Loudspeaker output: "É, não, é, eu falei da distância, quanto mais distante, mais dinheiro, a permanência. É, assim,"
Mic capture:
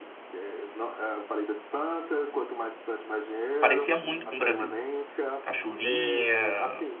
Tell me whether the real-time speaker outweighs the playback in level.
Yes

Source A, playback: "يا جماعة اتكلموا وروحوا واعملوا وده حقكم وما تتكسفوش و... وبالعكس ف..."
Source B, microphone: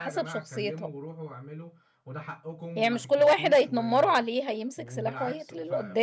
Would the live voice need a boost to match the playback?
No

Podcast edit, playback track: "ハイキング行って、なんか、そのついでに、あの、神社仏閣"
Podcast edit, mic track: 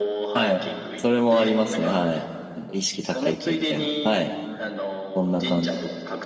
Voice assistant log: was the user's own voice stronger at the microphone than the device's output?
Yes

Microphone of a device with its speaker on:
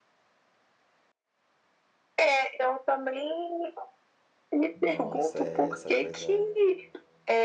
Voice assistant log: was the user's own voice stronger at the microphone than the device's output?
No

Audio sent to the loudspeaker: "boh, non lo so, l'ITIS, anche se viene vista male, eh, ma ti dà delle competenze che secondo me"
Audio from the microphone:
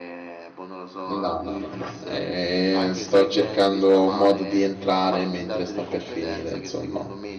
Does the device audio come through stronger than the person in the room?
No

